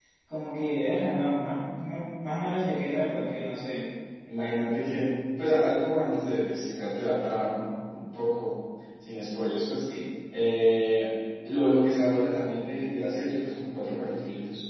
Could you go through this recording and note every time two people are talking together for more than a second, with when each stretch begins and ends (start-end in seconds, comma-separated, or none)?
none